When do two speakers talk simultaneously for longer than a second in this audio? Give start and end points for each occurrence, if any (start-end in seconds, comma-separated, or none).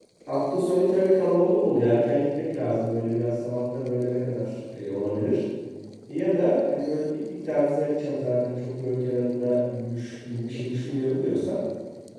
none